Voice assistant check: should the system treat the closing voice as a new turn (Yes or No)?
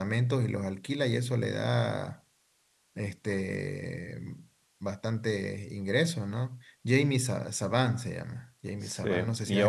Yes